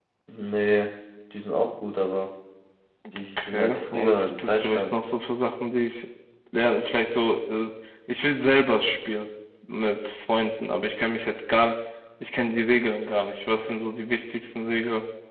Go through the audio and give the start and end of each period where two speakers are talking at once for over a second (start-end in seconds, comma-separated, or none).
3.4-4.9